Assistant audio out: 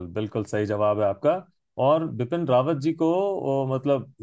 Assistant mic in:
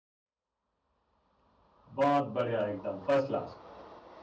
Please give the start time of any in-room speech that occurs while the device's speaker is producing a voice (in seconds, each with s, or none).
2.0 s